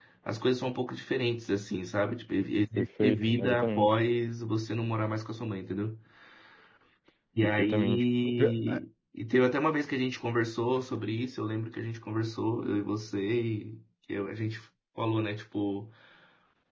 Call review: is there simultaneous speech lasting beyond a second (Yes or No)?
Yes